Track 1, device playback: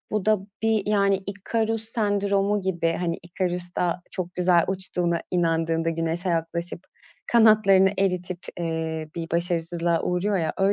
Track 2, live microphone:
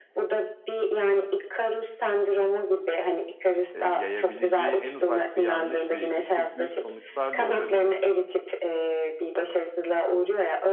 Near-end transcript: eee, yayabileceği en ufak bir yanlış bilgi çok büyük sonuçlar doğurabilir.

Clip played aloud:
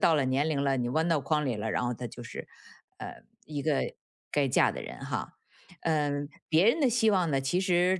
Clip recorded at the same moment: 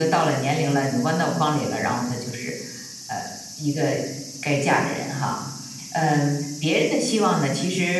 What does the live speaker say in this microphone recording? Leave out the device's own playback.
none

